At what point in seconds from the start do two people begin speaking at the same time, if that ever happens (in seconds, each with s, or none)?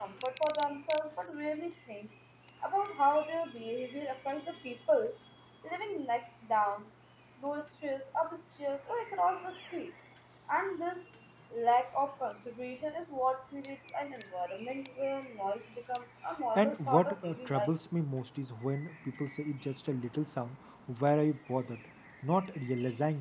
16.6 s